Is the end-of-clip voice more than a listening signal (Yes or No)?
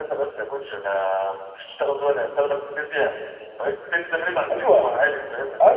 Yes